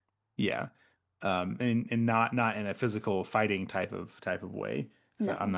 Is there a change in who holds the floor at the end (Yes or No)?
No